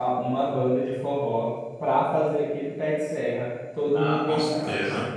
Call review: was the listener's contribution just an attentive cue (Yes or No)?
No